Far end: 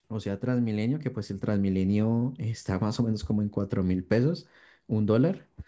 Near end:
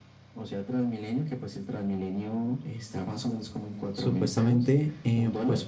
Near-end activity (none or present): present